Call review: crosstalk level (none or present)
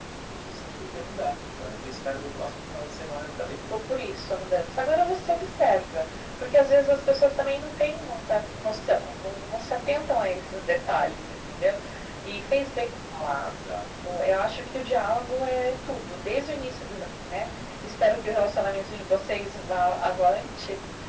none